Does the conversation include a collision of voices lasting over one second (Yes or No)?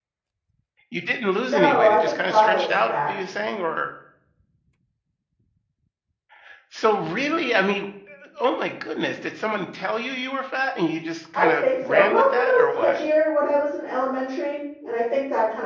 Yes